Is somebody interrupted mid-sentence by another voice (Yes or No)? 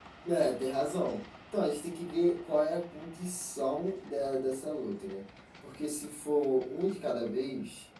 No